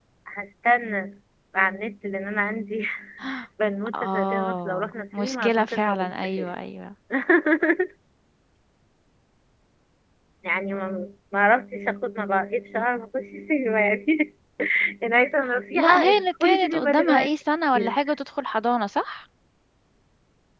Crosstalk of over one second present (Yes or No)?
Yes